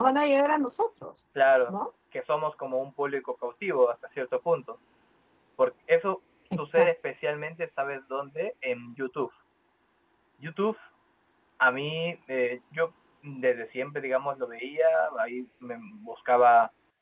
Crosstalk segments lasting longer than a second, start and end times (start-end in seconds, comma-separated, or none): none